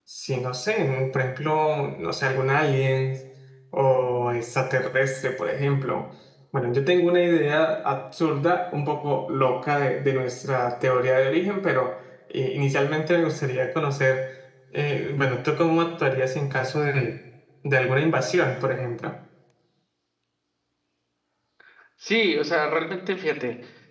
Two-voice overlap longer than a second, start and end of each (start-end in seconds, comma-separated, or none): none